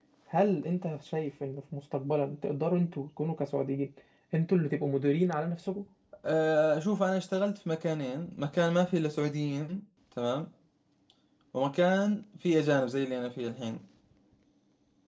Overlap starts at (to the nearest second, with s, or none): none